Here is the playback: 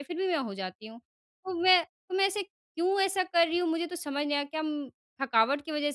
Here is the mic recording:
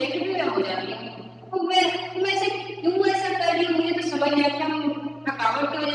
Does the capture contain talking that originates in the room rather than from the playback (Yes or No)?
No